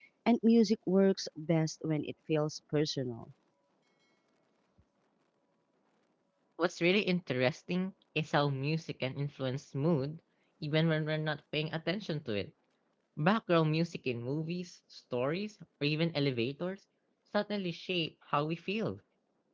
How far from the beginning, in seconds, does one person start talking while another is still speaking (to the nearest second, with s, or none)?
none